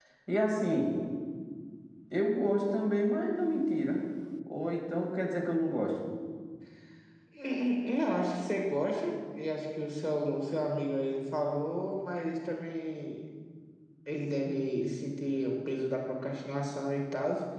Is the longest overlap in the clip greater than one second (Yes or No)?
No